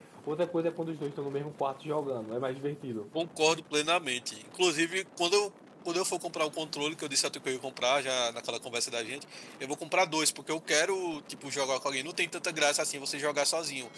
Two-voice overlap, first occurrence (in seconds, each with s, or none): none